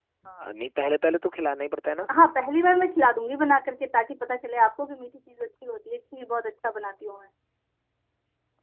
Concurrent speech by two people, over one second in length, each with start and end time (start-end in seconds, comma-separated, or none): none